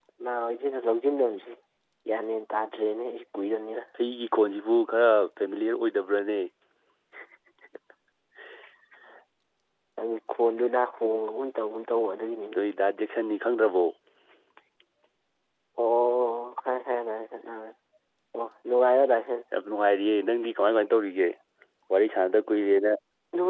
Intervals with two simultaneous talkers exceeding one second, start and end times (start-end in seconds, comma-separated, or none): none